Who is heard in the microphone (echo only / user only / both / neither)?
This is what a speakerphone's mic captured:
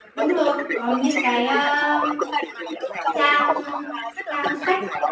both